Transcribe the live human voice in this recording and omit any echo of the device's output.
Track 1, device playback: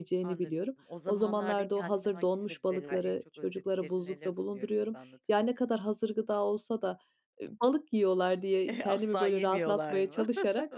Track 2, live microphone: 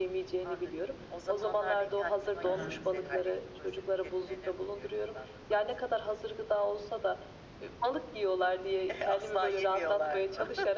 He he.

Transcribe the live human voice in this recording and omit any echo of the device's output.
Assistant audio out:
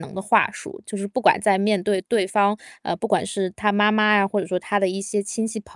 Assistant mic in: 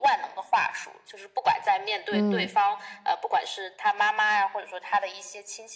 嗯。

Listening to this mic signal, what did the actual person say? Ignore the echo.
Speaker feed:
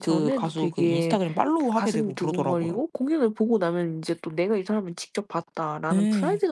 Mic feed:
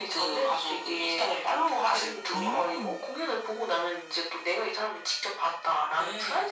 음.

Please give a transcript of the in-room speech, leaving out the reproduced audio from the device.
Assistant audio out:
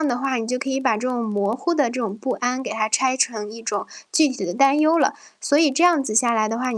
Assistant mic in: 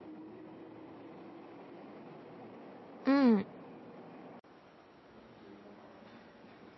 嗯。

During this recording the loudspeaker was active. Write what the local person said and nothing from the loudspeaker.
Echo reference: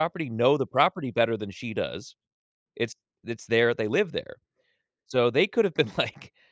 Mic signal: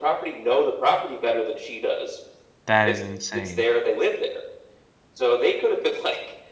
That is insane.

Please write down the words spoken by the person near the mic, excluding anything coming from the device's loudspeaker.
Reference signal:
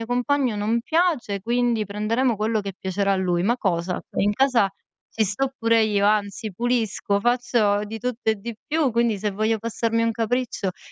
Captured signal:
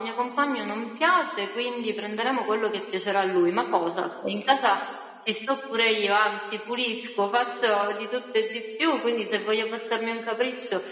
none

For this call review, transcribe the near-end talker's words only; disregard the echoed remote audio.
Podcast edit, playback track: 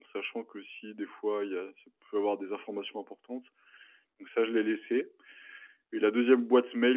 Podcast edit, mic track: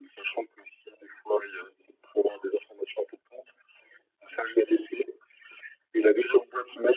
none

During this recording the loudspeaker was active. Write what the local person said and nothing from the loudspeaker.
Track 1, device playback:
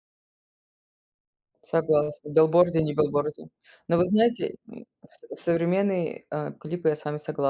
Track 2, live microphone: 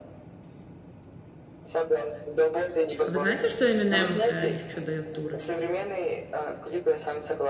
А вы знаете, что Эминем, э, ещё даёт туры?

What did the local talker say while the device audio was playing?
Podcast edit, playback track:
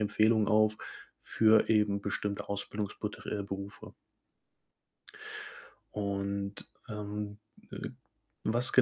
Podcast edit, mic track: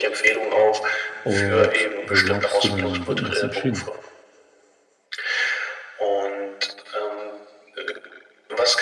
Und wo glaubst du denn, wird denn das entschieden?

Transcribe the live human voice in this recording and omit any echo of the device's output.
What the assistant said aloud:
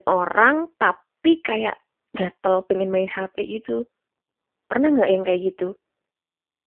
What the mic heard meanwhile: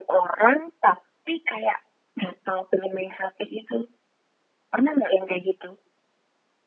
none

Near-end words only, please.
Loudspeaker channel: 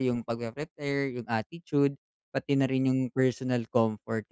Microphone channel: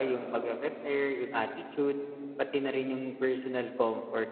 none

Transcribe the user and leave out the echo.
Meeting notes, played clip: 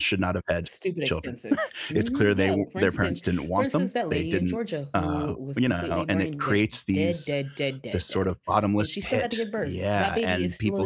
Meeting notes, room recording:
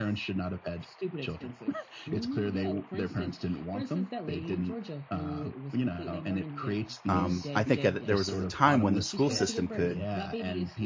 um, I think a there was a time when the school system could

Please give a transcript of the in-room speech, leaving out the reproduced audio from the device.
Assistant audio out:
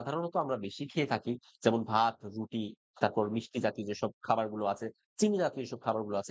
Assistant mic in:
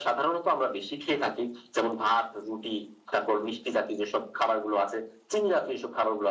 none

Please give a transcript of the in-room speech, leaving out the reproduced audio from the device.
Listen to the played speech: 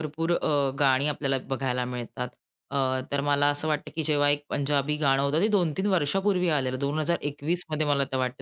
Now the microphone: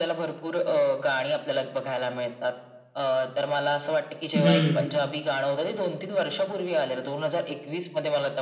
हम्म.

